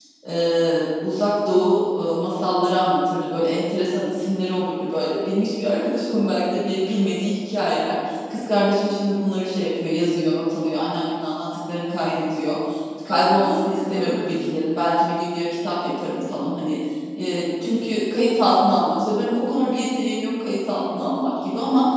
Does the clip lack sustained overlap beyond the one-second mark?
No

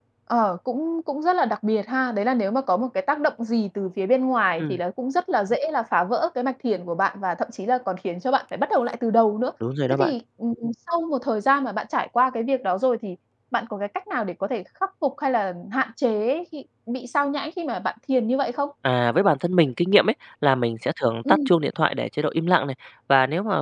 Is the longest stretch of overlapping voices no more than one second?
Yes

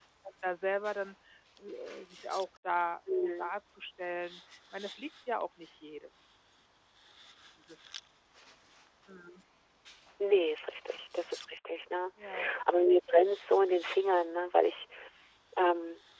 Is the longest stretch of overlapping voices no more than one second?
Yes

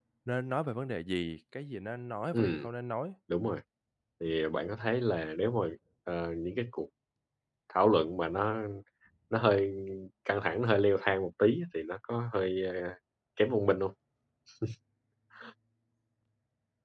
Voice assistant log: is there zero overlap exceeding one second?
Yes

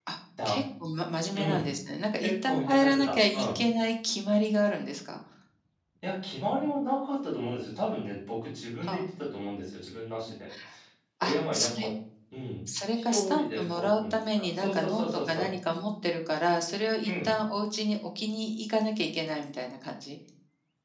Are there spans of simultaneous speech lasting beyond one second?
Yes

